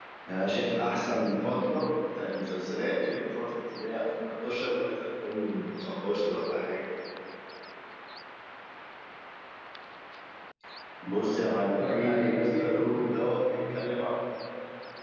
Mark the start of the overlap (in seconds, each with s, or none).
11.2 s